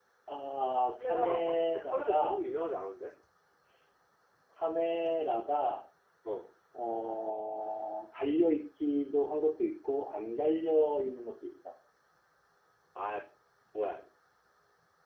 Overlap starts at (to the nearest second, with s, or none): 1 s